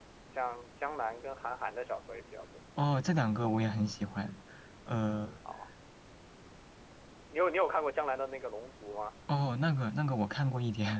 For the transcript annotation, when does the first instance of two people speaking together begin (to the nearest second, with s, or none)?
none